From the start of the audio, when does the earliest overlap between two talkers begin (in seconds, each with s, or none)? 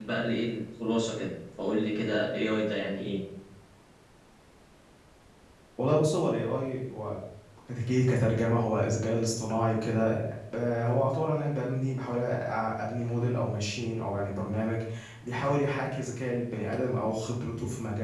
none